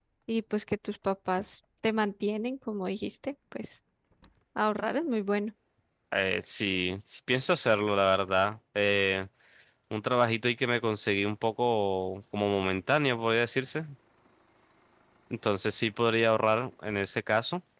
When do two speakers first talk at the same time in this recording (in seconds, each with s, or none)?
none